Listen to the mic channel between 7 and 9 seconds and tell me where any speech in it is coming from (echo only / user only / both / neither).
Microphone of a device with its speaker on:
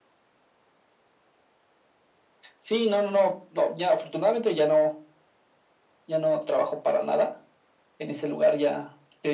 echo only